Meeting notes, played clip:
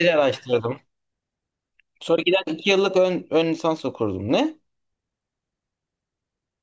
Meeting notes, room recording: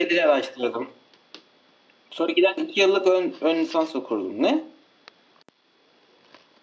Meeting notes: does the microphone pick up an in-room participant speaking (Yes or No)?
No